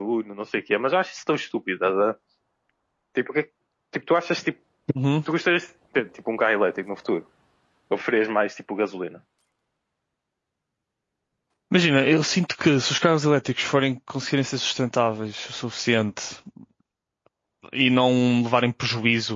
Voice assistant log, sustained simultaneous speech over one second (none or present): none